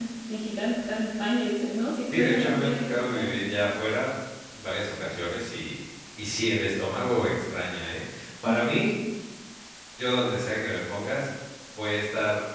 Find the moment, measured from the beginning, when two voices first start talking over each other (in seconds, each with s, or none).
2.1 s